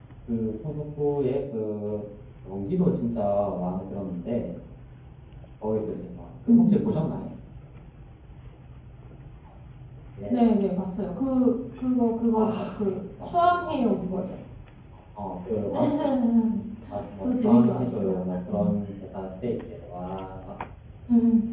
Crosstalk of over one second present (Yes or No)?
Yes